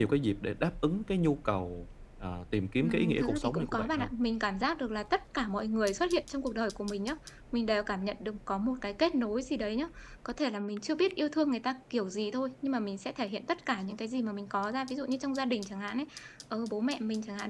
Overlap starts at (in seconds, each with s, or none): 2.8 s